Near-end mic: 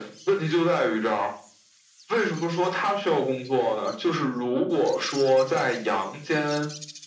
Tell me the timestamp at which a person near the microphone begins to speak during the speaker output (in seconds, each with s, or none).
none